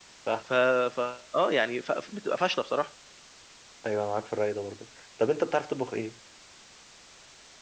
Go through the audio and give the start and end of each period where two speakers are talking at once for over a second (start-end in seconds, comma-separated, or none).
none